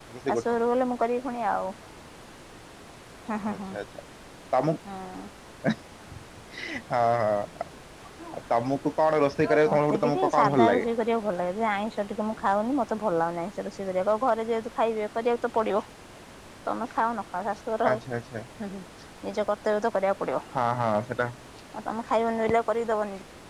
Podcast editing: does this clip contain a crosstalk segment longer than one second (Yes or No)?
Yes